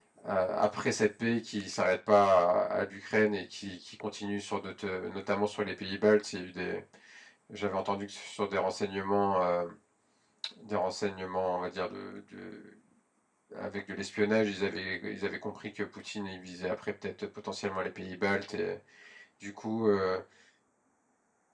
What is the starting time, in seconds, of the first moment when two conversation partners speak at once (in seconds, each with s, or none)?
none